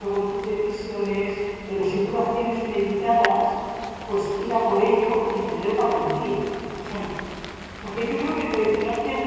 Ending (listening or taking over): listening